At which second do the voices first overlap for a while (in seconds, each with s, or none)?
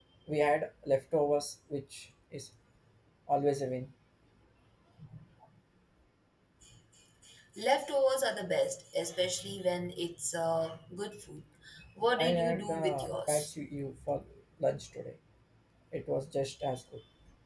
12.2 s